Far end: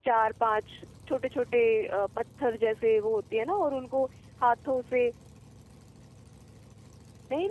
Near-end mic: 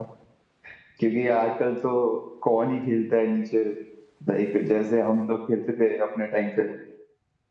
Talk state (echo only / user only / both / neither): user only